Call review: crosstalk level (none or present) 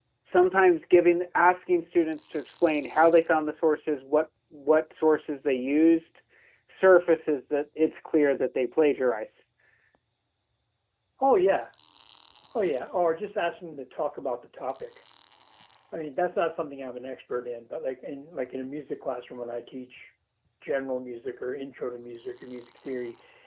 none